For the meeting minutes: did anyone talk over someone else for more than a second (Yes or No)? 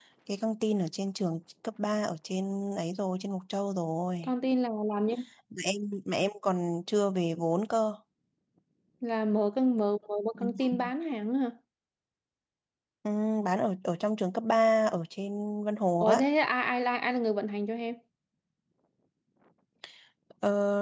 No